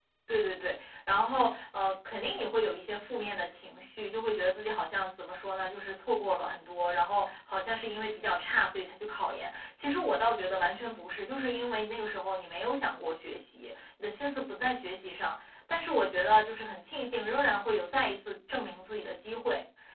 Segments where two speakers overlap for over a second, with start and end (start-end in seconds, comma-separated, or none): none